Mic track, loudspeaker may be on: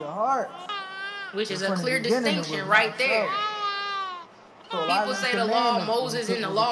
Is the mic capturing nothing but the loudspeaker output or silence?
Yes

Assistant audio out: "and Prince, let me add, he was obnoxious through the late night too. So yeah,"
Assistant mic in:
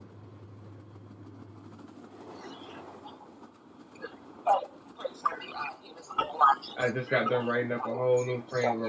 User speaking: Yes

